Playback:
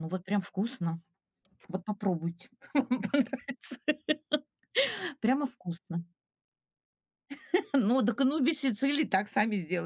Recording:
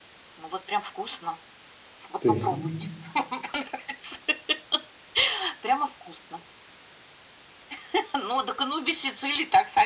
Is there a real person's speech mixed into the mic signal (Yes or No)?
Yes